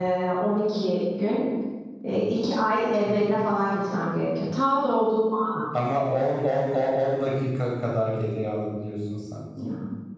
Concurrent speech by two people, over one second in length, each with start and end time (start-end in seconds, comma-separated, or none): none